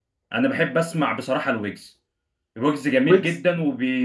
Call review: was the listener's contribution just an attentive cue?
Yes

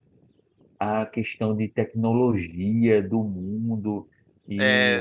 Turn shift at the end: No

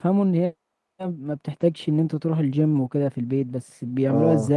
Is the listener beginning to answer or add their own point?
Yes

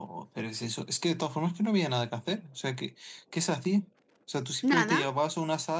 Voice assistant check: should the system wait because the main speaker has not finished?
Yes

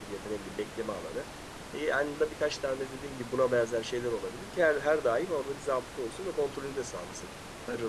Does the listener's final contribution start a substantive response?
Yes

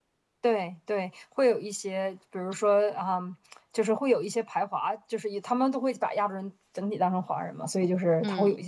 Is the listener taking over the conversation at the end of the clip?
No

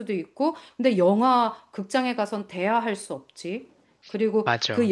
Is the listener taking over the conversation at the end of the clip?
No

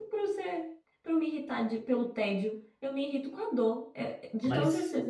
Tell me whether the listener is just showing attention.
Yes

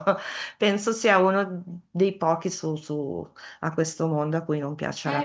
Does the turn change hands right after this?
No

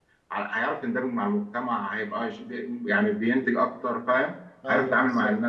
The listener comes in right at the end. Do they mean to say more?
Yes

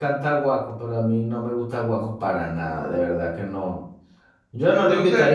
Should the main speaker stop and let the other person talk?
No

